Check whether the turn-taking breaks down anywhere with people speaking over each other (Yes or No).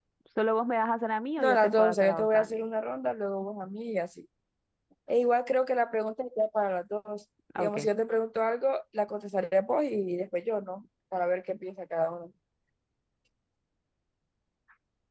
Yes